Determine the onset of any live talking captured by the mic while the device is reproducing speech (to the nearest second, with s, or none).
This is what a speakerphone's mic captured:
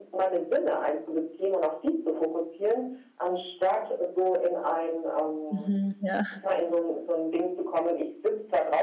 5 s